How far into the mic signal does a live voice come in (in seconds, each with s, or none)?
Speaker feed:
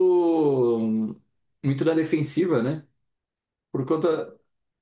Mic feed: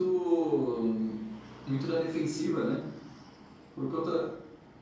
none